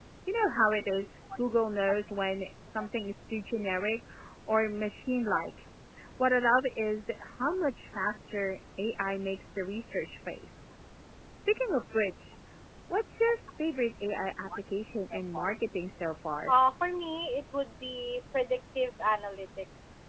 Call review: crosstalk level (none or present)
none